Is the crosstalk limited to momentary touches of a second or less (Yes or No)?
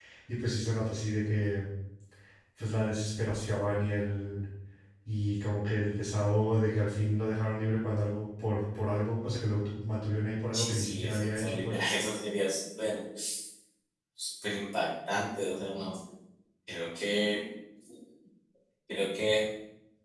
No